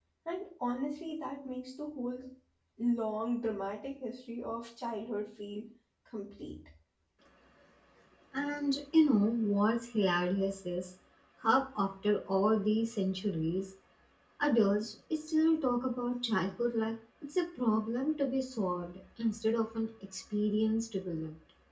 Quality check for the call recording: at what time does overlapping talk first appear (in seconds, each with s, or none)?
none